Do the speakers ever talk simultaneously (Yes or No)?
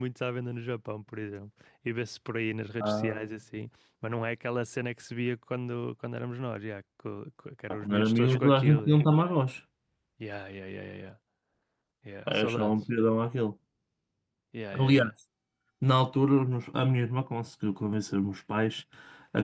Yes